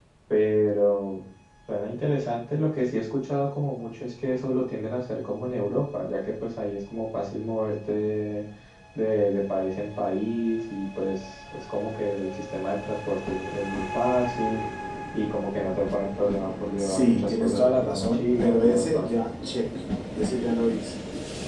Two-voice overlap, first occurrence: 16.8 s

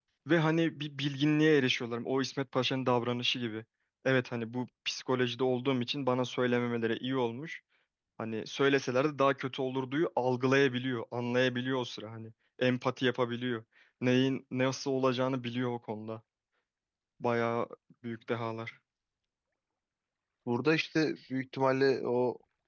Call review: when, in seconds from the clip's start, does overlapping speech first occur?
none

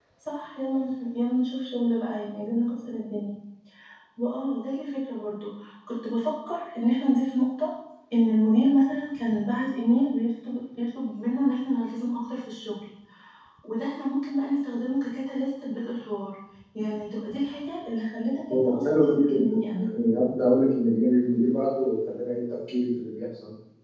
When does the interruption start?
18.5 s

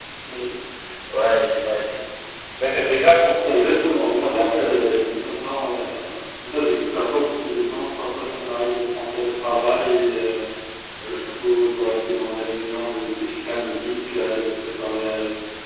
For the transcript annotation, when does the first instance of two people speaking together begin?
3.5 s

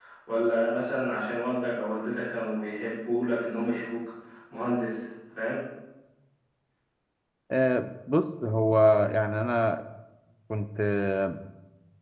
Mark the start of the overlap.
none

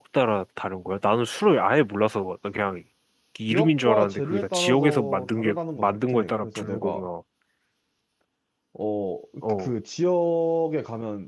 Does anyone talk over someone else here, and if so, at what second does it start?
3.5 s

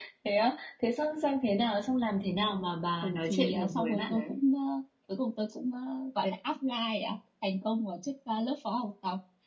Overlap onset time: 3.0 s

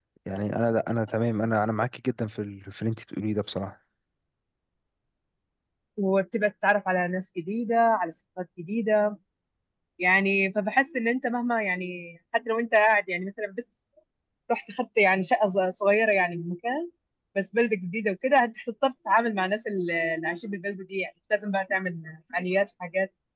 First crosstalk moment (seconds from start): none

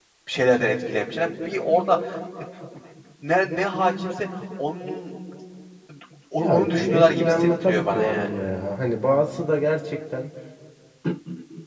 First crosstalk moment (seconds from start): 6.4 s

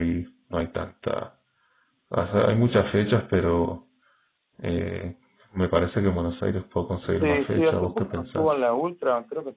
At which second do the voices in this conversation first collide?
7.1 s

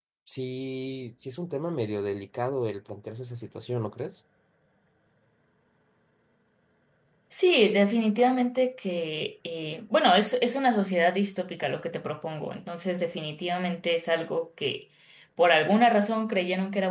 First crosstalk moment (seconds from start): none

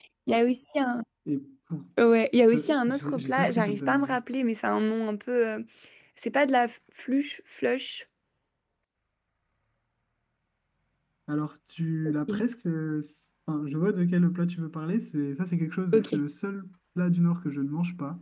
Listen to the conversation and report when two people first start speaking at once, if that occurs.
2.5 s

